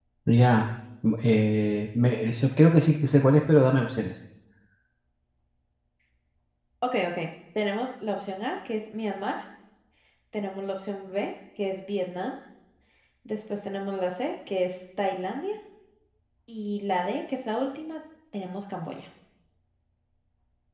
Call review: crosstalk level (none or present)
none